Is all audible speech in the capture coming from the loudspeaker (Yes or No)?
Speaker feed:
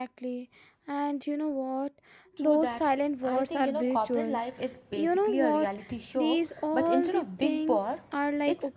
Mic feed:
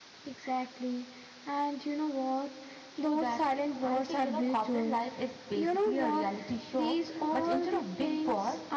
Yes